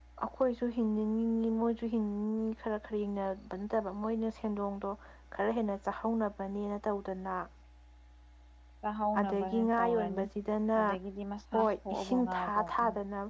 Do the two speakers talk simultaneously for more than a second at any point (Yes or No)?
Yes